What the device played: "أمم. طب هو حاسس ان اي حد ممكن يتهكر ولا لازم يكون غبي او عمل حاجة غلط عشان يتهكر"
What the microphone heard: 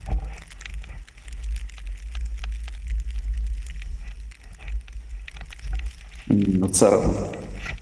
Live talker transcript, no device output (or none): امم اتسرق